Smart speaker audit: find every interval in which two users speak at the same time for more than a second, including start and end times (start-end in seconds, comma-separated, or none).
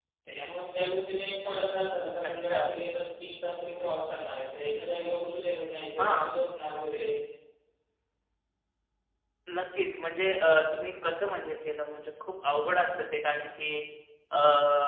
none